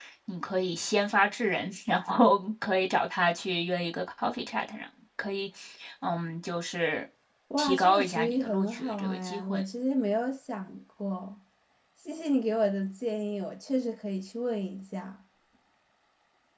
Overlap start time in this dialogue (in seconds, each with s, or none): 7.6 s